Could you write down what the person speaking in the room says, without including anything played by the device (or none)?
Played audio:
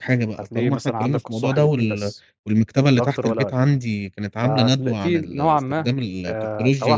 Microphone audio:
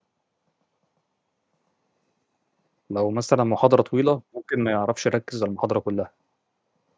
لو مثلًا محاضرة طويلة، ممكن ما يعرفش يركّز على المحاضرة كلّها.